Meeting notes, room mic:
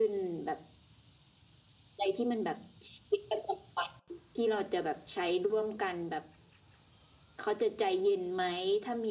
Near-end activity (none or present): none